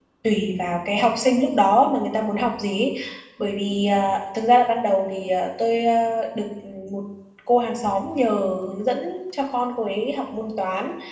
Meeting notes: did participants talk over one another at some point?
No

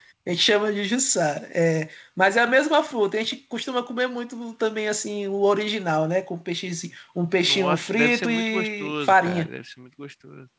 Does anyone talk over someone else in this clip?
Yes, from 7.4 s

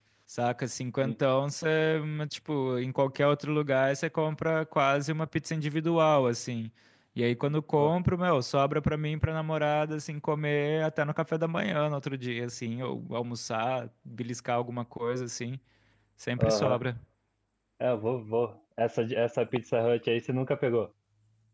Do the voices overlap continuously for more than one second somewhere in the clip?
No

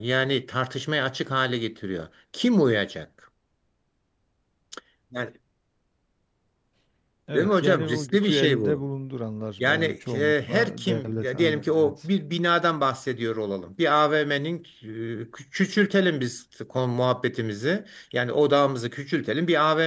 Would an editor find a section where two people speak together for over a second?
Yes, from 7.3 s

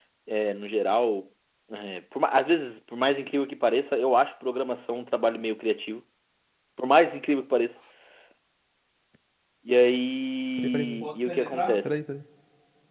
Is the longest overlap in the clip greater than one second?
Yes, from 10.6 s

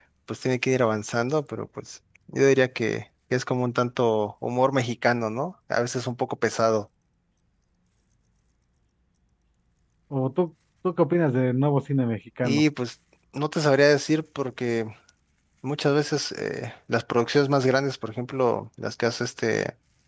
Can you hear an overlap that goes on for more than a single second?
No

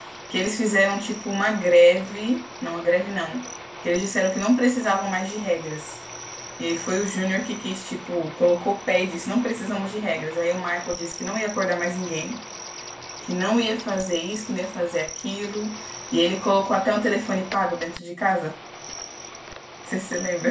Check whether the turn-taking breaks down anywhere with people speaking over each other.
No

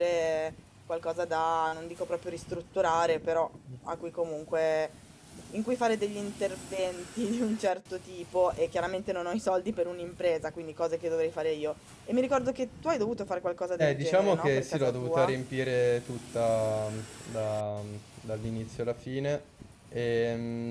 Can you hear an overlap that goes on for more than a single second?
Yes, from 13.8 s

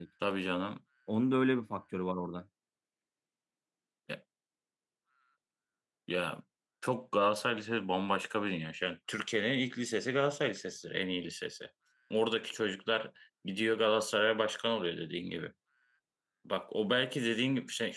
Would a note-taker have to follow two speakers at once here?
No

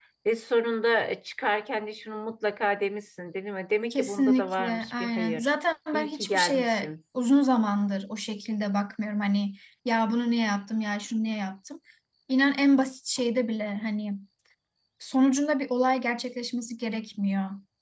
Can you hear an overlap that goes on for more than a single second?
Yes, from 3.9 s

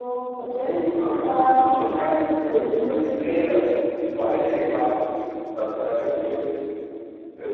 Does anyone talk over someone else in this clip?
Yes, from 1.4 s

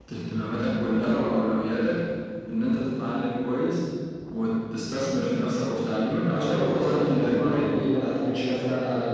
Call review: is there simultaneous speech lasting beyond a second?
Yes, from 6.3 s

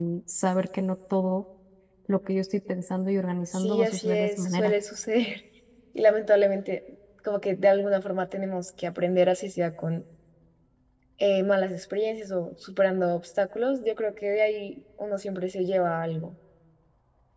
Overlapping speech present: Yes, from 3.5 s

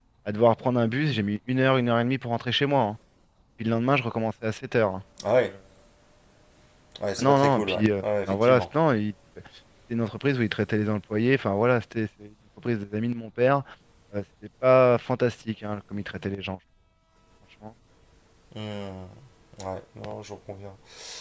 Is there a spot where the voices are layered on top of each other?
Yes, from 7.2 s

